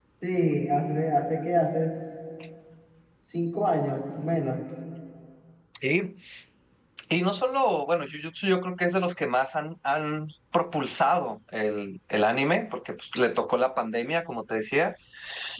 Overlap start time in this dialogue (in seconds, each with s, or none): none